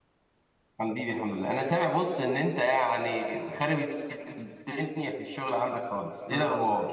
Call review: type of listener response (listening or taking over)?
taking over